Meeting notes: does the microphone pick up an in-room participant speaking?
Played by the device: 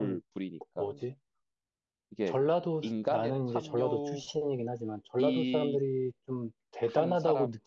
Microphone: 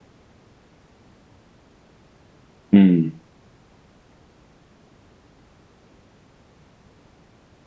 Yes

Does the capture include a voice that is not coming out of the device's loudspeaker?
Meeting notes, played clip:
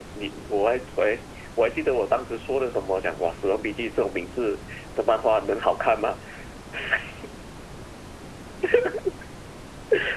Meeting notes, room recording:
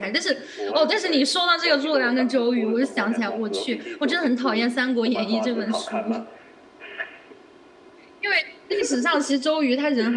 Yes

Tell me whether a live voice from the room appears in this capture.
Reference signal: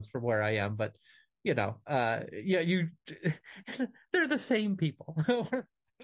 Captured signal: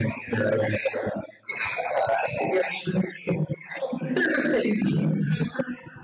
No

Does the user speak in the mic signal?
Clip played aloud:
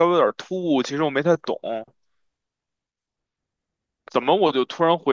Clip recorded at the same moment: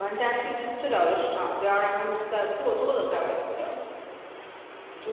Yes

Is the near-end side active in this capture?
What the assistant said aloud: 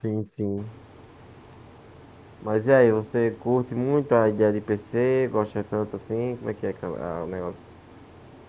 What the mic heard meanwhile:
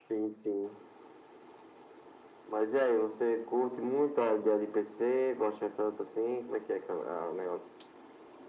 No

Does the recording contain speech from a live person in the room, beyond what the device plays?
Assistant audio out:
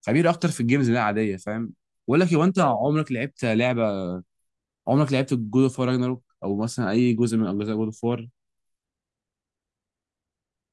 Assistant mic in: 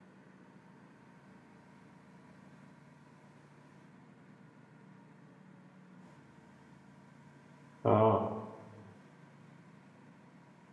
Yes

